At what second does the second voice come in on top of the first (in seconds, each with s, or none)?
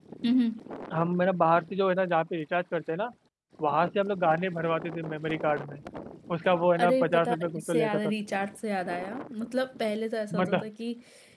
6.8 s